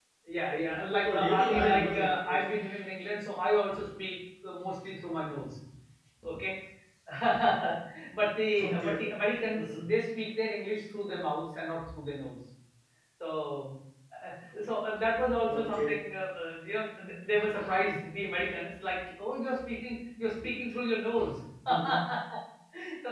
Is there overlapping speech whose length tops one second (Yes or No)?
Yes